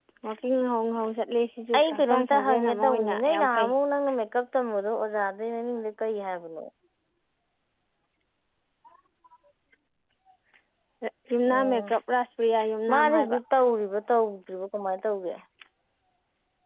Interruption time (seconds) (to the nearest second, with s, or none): 2 s